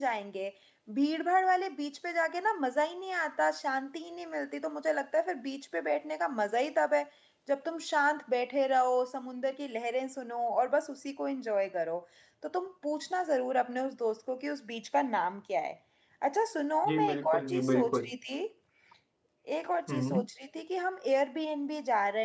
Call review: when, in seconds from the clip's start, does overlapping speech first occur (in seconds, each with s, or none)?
16.9 s